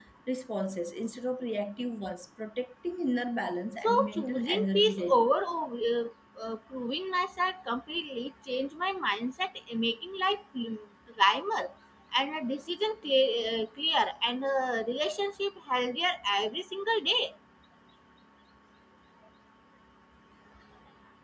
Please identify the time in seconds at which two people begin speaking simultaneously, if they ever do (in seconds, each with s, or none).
3.8 s